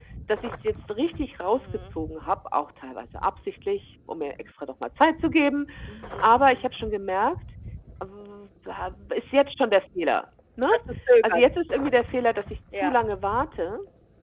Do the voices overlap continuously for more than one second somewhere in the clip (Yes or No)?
No